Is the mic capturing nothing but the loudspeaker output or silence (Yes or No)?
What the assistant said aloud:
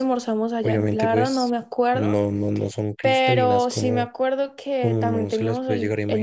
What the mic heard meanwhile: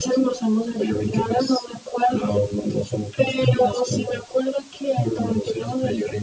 Yes